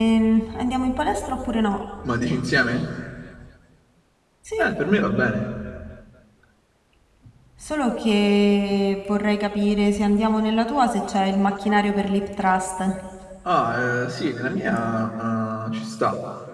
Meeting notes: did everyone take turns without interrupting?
Yes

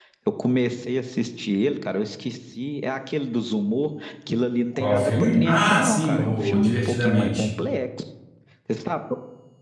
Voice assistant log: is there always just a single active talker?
No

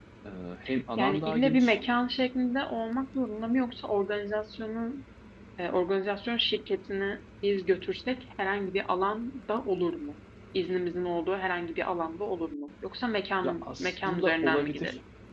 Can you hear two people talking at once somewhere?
Yes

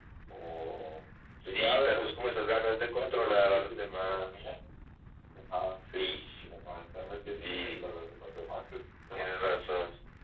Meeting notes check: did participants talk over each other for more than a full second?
Yes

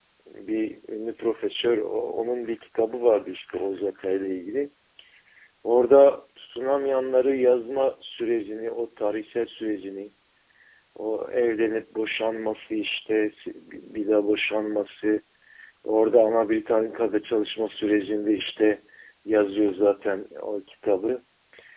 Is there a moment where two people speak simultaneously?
No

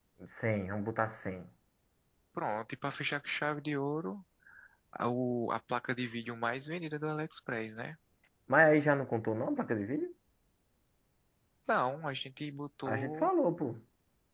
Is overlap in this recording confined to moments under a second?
Yes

